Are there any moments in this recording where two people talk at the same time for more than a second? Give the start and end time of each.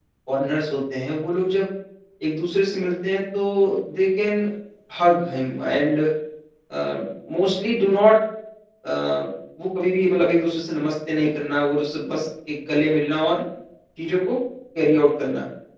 none

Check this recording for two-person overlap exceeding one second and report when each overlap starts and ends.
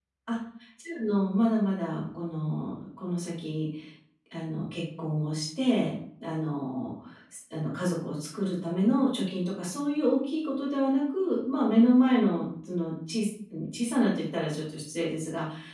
none

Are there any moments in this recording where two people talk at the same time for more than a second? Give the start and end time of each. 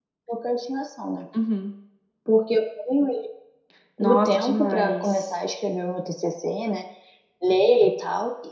4.0-5.4

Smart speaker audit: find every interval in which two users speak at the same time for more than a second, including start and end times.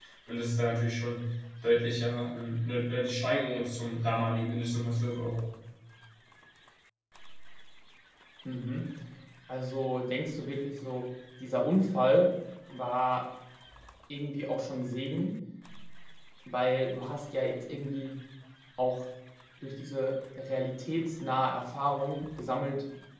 none

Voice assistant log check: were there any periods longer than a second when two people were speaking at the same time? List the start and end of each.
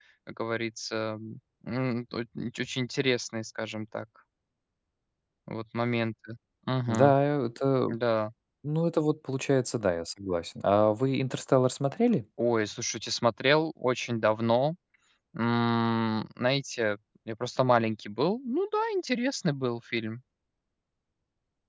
none

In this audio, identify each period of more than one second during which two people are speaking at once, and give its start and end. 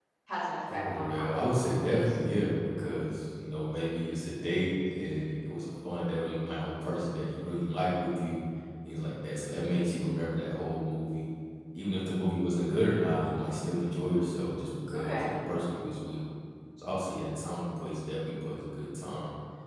0.7-2.2

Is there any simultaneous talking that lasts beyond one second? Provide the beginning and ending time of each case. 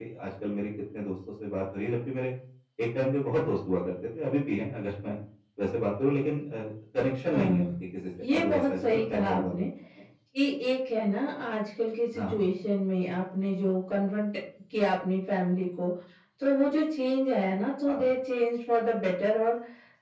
8.3-9.5

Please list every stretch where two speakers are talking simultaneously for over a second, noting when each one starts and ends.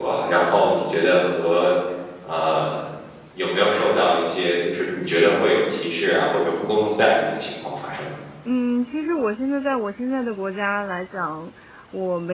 none

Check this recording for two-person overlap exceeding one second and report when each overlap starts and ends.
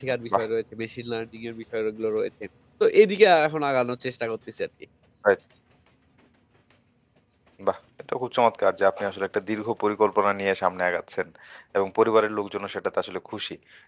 none

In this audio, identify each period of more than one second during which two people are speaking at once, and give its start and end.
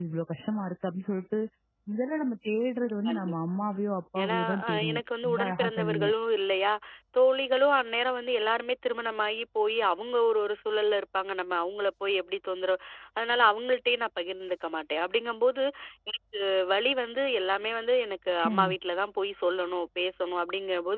4.2-6.1

